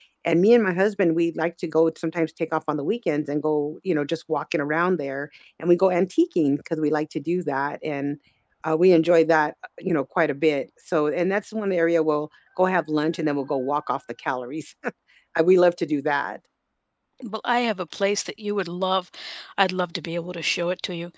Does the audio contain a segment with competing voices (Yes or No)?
No